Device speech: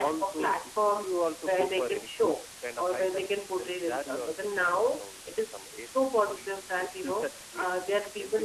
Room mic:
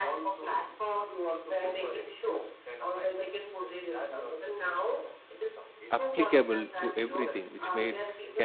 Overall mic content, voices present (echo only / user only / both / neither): both